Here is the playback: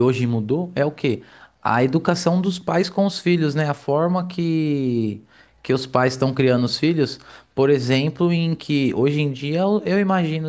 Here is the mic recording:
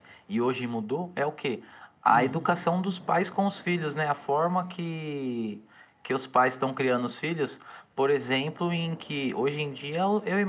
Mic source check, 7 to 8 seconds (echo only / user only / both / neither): echo only